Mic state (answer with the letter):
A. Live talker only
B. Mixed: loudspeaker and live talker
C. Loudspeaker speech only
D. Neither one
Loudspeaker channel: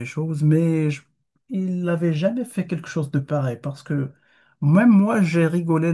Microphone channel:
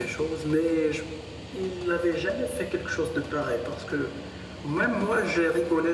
C